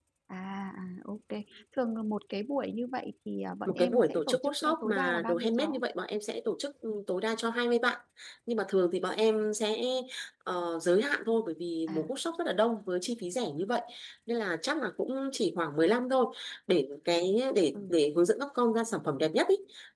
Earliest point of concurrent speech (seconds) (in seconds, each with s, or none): 3.7 s